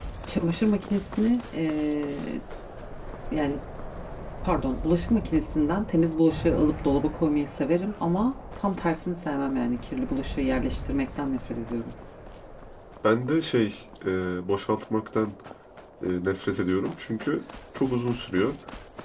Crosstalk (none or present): none